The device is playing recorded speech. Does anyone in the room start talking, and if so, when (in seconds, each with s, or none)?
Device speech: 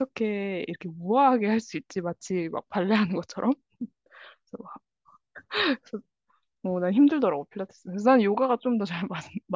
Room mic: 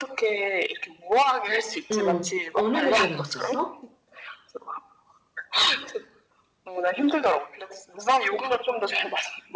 1.9 s